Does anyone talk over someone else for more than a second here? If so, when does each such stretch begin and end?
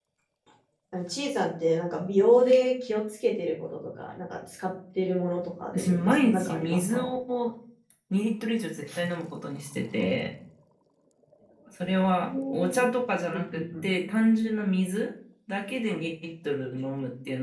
5.7-7.1

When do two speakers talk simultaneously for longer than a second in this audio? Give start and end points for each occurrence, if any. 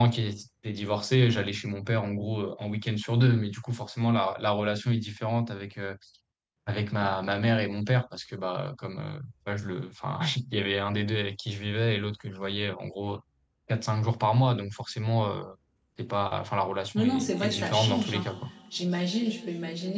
16.9-18.3

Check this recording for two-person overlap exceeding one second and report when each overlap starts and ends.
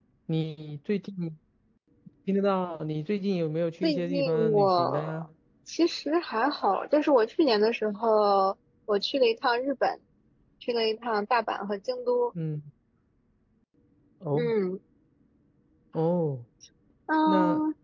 3.8-5.2

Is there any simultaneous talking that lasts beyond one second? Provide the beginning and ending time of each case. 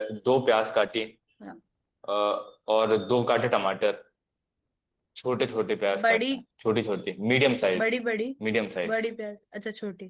none

